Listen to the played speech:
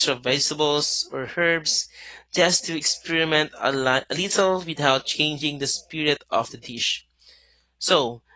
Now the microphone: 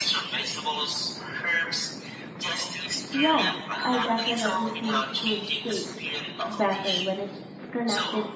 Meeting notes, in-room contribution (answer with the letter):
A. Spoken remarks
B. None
A